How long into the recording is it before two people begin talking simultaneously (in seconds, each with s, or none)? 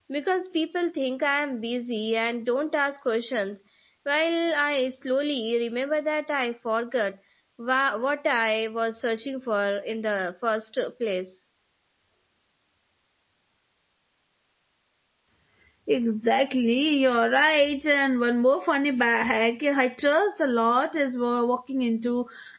none